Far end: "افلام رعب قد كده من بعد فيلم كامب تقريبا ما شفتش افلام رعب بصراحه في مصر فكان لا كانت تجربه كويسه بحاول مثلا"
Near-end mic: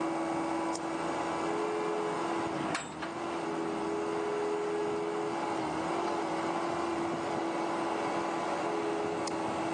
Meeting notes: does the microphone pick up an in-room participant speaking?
No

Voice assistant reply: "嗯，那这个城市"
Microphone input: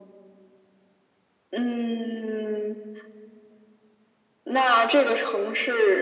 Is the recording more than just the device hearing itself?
No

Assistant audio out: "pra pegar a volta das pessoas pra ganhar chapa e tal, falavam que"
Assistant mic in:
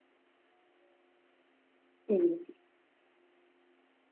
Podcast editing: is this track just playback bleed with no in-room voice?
No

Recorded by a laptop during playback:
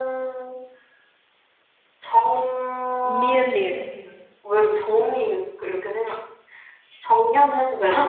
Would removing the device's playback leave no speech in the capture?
No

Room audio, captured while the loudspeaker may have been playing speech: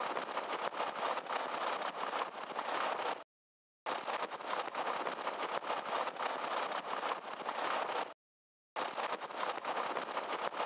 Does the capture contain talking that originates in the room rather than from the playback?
No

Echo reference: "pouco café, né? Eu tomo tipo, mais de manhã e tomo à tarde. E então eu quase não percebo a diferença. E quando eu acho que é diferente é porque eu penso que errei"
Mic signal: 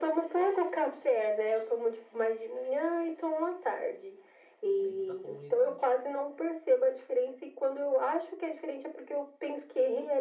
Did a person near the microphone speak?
Yes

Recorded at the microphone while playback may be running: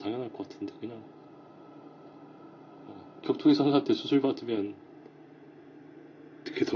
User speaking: No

